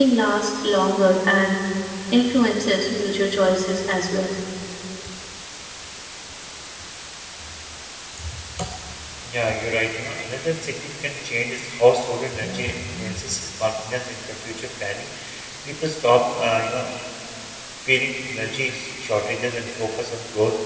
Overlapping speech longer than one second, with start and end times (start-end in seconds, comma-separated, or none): none